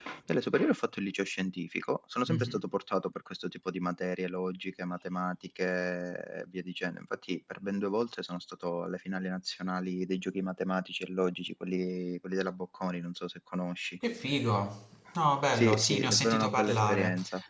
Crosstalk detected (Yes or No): Yes